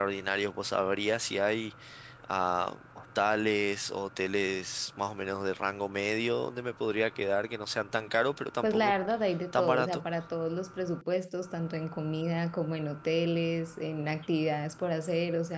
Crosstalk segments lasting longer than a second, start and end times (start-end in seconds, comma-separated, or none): none